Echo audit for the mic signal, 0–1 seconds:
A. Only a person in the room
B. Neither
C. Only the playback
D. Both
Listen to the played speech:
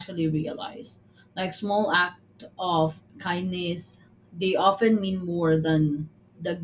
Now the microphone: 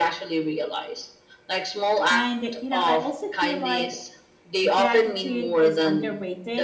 C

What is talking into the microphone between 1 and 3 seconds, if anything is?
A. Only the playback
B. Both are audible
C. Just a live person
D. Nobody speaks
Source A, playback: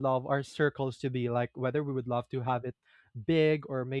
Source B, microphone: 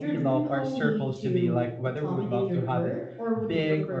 B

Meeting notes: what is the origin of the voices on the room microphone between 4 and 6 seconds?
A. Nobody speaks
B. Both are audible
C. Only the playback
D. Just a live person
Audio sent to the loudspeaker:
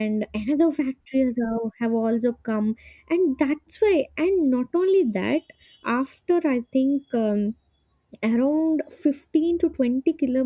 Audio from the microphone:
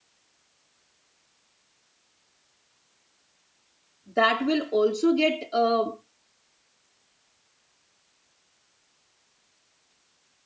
D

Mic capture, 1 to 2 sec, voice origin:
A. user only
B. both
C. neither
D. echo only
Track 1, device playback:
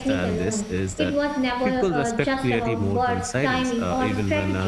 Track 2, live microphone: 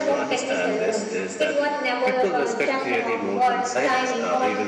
D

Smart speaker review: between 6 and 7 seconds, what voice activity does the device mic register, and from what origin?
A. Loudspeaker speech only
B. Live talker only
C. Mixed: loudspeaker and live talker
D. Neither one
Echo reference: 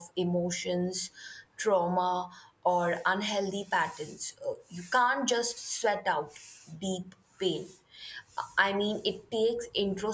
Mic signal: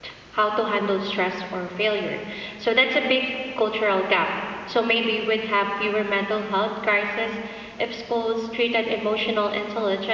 B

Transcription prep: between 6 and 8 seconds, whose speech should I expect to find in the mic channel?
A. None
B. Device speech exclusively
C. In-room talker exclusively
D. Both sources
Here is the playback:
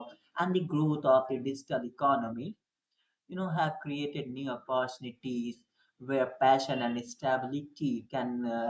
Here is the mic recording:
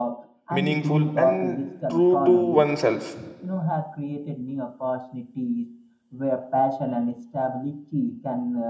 B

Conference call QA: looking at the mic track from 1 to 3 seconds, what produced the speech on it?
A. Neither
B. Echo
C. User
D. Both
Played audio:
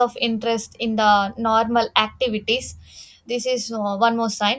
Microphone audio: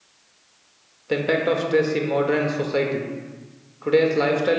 C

